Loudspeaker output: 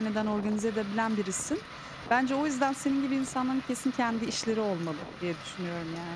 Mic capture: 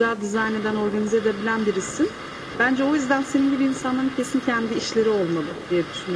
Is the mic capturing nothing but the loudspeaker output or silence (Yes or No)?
Yes